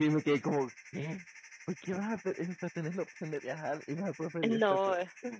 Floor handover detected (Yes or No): Yes